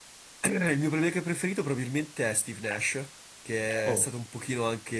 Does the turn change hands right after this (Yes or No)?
No